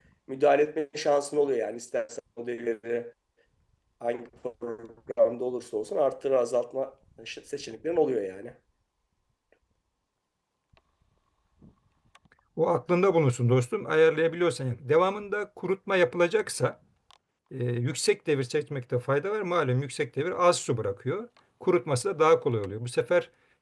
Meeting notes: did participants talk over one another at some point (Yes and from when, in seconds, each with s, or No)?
No